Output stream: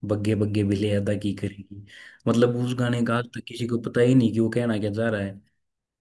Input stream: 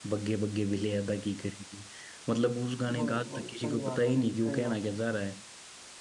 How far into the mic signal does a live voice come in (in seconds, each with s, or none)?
2.9 s